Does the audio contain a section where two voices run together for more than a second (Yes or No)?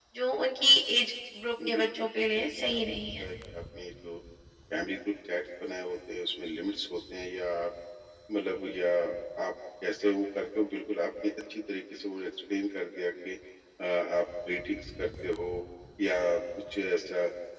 Yes